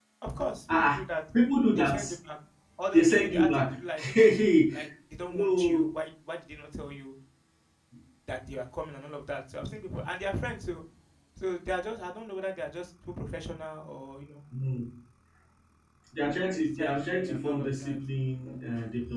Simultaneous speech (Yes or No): Yes